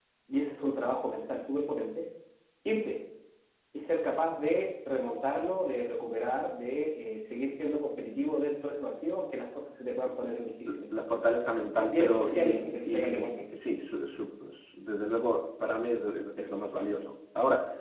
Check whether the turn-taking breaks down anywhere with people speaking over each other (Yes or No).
Yes